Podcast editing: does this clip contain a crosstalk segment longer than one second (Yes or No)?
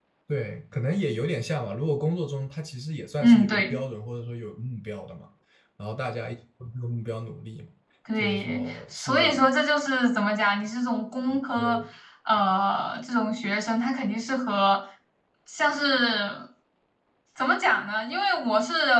Yes